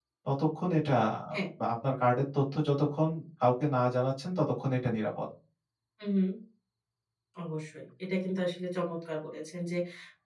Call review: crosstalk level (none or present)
none